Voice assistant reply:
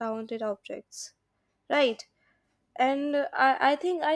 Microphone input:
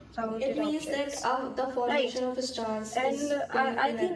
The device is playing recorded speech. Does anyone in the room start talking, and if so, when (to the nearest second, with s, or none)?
0 s